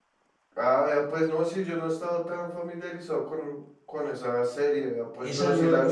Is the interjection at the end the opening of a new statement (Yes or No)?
Yes